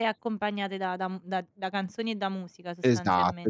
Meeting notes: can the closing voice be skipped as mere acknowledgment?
No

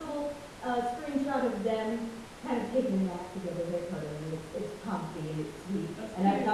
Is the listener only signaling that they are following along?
Yes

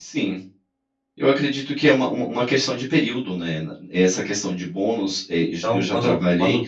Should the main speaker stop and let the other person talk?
Yes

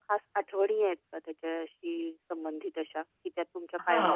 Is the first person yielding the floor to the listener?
Yes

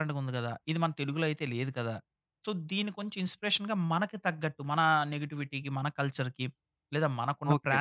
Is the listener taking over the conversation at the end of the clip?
Yes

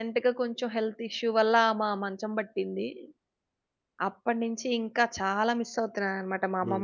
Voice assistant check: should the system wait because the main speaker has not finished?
No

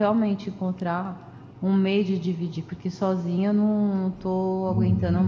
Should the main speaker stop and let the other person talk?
Yes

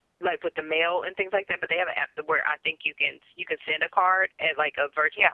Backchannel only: Yes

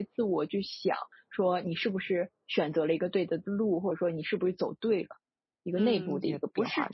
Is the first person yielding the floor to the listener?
Yes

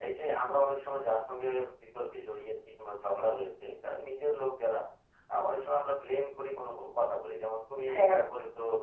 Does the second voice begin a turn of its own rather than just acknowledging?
No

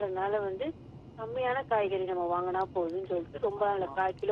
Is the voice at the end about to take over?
No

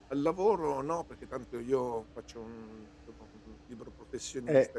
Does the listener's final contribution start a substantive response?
Yes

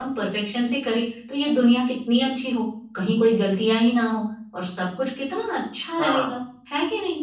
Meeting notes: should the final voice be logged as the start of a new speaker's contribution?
No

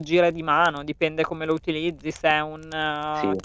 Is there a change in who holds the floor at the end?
No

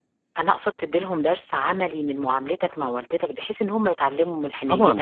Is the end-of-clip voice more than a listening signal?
Yes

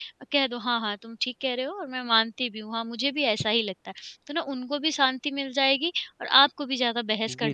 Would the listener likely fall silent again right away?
No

